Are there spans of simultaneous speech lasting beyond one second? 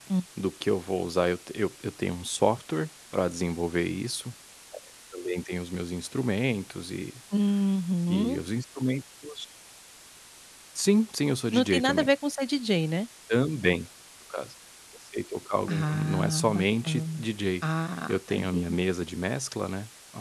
Yes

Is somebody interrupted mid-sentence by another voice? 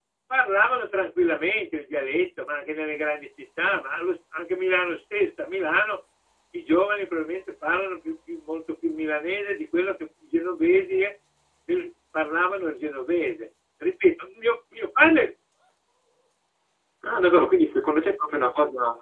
No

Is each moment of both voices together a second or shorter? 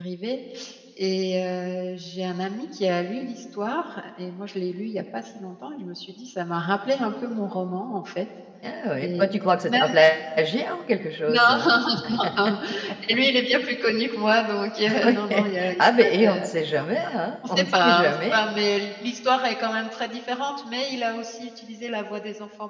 No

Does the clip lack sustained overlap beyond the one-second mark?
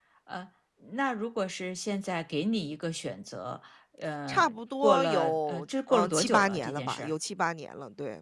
No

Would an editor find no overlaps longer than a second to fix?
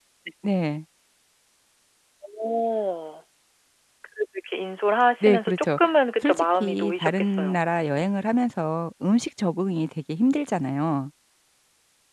No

